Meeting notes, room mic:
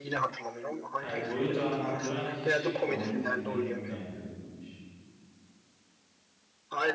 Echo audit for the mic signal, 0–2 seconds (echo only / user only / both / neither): both